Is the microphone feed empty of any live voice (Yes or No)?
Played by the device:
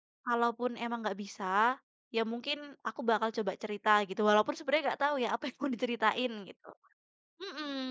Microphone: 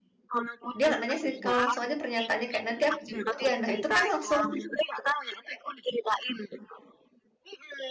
No